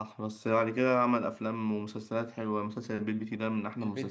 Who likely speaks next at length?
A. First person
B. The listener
B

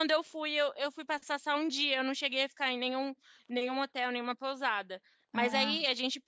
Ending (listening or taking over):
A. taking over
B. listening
B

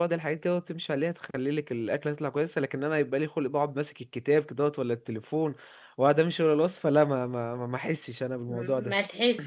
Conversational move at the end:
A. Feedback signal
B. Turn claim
B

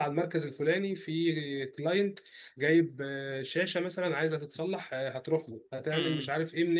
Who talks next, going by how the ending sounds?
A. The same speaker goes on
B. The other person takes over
A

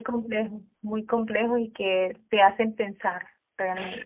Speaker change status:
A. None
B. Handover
B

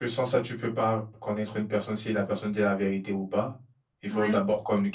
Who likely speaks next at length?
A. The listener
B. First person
B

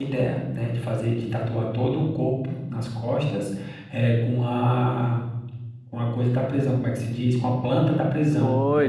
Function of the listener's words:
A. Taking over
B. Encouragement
A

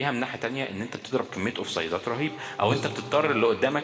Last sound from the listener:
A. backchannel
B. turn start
A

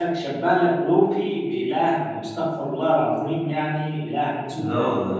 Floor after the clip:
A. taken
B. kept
B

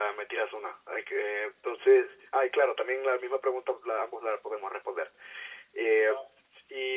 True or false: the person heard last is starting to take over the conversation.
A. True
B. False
B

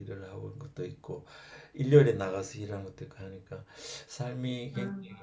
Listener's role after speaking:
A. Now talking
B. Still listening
B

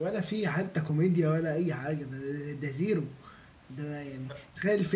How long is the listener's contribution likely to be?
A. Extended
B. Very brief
B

